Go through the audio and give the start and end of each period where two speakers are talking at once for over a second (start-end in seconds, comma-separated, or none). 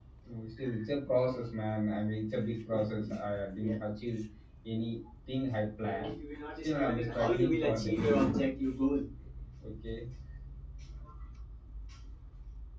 6.6-8.2